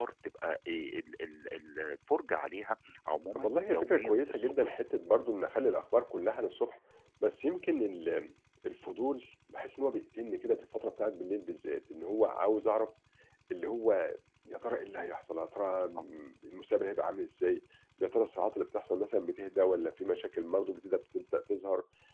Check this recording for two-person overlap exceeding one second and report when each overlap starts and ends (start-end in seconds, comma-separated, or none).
3.4-4.8